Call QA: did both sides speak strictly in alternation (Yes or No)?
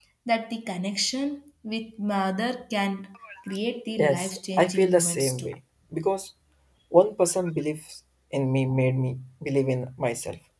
No